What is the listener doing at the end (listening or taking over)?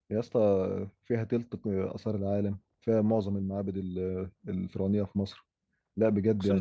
listening